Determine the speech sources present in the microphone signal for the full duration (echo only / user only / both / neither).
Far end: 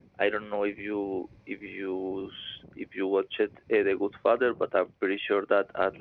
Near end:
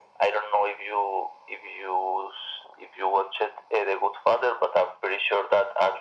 echo only